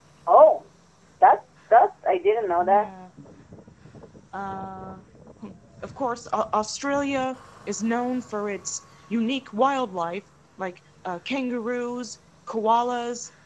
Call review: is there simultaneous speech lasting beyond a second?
No

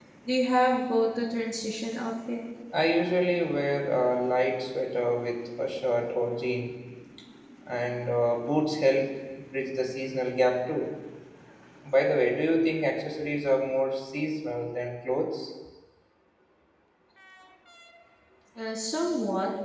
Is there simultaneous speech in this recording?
No

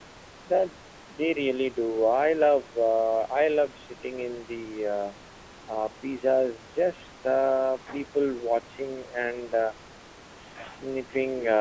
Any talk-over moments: No

